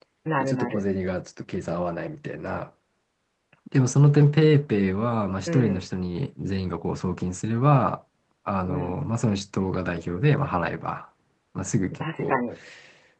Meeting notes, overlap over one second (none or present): none